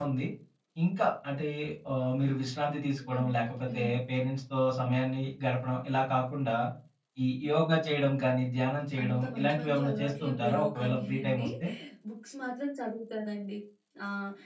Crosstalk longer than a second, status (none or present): present